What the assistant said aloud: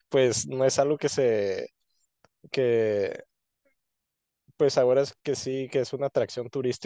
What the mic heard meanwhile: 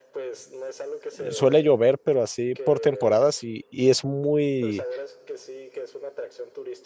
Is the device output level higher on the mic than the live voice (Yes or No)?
No